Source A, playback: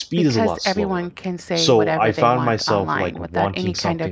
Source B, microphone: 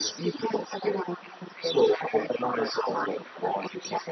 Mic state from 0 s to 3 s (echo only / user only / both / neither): echo only